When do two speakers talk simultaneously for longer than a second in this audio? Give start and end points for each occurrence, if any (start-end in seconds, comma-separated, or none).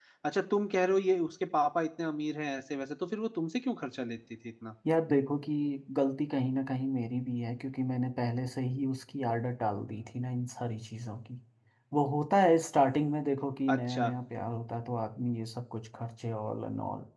none